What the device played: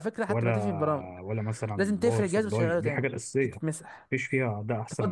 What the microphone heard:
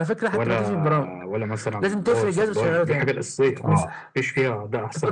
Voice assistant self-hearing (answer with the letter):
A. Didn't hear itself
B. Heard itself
B